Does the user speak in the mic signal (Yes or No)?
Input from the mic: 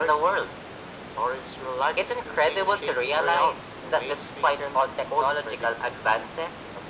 No